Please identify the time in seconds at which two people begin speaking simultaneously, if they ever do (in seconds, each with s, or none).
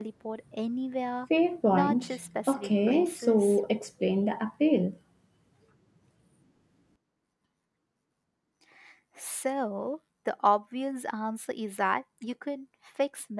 1.7 s